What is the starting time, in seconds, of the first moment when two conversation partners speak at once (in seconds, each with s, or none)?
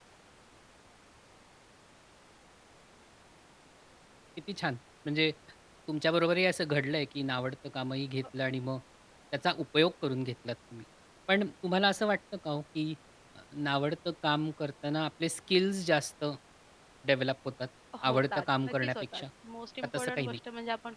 18.0 s